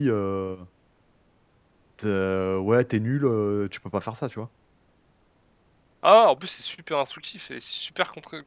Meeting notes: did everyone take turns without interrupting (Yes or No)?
Yes